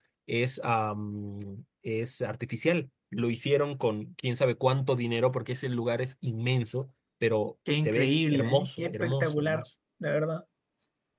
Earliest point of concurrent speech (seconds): 7.7 s

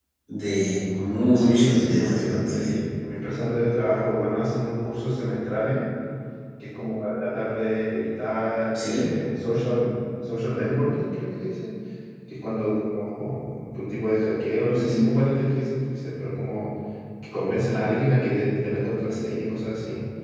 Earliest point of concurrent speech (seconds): 1.3 s

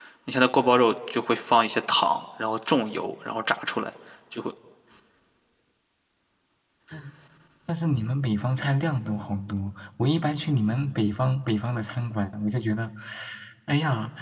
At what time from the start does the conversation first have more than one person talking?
none

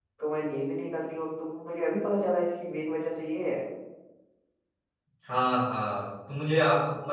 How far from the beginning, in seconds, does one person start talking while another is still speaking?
none

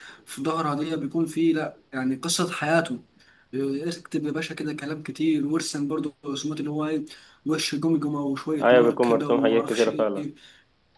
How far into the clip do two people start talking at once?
8.6 s

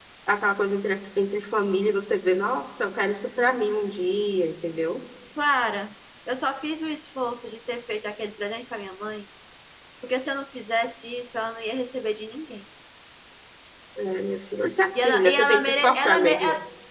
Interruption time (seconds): 14.9 s

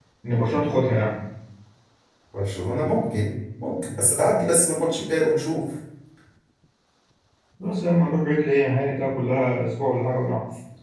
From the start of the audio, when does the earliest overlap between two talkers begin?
none

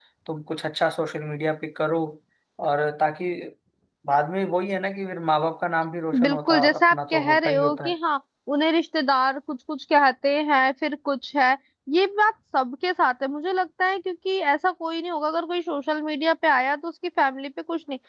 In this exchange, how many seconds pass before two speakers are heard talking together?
6.1 s

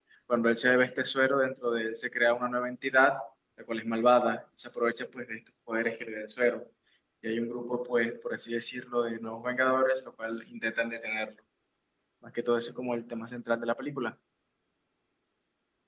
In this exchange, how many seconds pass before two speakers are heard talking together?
none

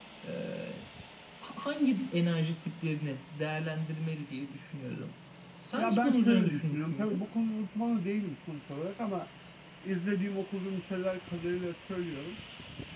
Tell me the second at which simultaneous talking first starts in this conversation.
5.8 s

